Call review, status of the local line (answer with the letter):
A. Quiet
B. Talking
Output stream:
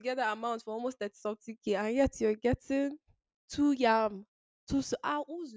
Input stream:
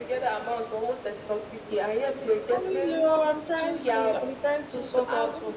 B